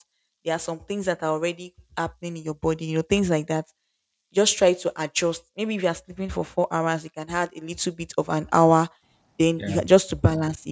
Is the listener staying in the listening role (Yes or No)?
Yes